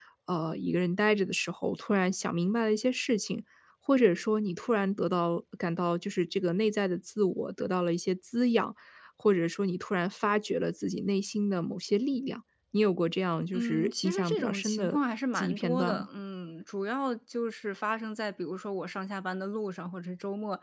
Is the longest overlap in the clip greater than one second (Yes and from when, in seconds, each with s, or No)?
Yes, from 13.5 s